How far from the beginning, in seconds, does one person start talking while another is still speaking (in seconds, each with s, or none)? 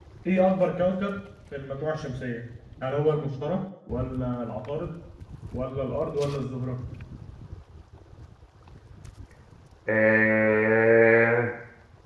none